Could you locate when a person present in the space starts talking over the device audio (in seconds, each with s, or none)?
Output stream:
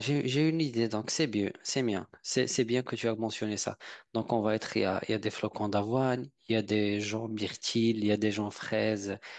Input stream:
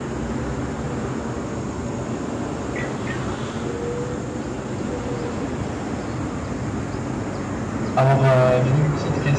7.9 s